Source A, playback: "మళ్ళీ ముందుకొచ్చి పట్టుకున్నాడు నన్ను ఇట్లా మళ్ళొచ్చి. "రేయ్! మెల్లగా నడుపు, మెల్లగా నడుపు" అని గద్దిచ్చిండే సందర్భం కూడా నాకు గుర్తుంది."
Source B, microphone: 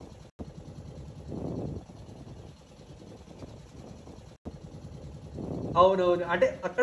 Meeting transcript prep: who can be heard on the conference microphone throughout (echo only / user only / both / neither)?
user only